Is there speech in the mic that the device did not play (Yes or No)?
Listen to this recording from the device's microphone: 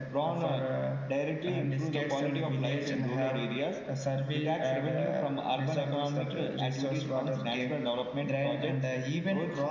No